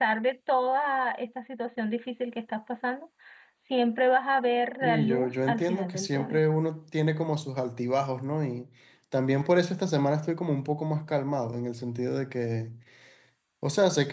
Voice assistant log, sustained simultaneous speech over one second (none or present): present